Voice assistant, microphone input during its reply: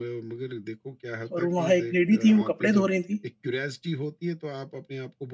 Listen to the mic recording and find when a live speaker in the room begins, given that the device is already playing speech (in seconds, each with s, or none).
1.3 s